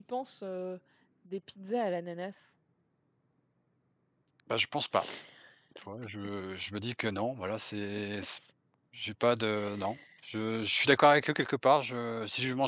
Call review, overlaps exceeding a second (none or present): none